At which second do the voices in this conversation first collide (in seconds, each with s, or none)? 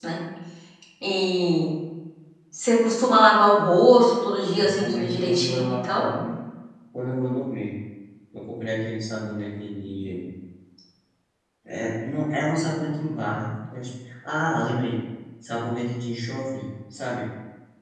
4.5 s